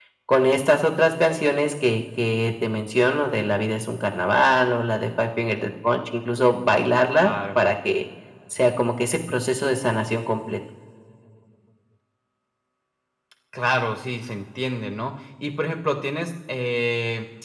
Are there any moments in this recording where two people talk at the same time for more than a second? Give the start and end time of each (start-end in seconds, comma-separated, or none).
none